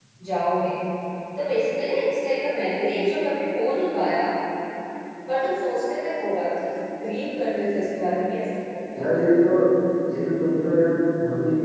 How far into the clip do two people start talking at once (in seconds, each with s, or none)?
none